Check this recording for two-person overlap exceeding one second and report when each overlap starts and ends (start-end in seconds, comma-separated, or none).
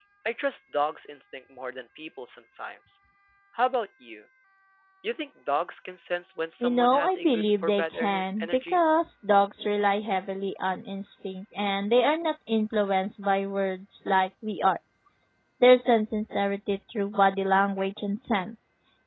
6.6-8.8